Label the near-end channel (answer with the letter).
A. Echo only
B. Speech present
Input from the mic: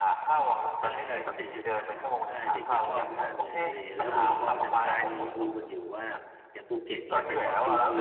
B